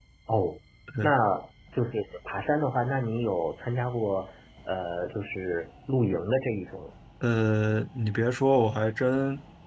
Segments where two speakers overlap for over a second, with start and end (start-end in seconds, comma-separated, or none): none